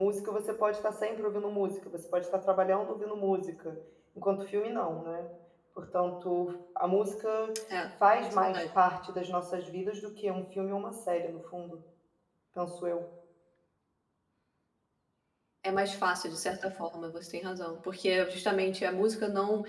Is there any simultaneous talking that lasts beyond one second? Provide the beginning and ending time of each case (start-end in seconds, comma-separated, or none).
none